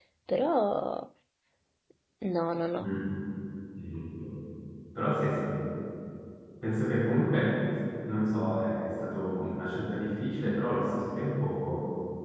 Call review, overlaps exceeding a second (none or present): none